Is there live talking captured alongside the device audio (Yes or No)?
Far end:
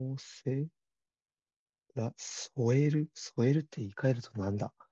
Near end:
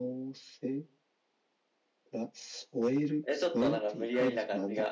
Yes